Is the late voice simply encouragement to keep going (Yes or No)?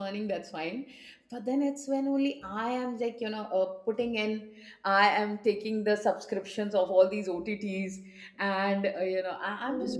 No